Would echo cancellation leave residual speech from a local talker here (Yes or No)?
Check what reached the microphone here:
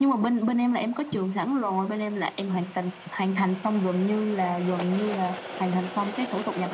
No